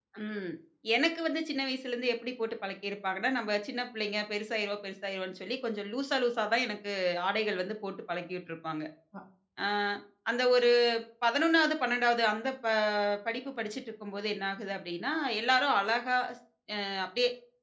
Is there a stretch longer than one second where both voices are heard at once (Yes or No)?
No